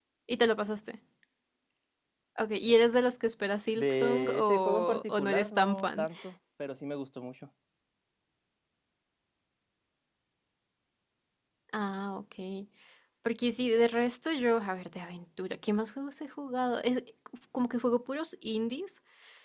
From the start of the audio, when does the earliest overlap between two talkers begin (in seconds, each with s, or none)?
3.8 s